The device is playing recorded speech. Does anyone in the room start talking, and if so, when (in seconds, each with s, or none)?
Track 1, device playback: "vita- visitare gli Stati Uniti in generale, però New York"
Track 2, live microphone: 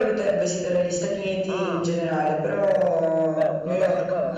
1.5 s